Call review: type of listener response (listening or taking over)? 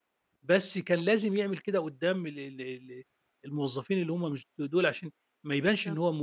listening